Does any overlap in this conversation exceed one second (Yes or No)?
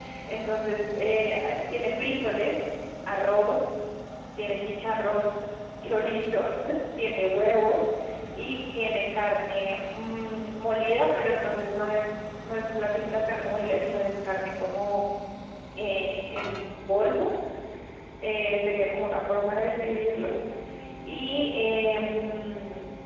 No